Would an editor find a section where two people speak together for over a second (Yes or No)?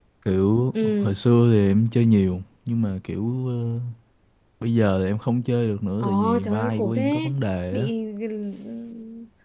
Yes